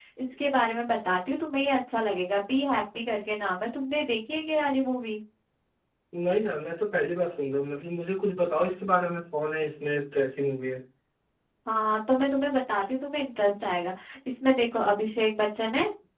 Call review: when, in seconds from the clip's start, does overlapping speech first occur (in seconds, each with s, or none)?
none